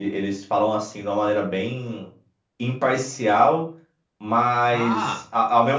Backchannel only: Yes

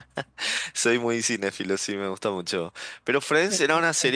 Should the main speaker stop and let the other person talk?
No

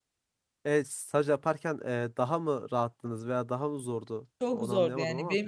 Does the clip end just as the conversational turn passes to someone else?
Yes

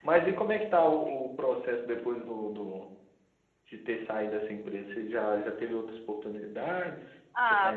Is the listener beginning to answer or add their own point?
Yes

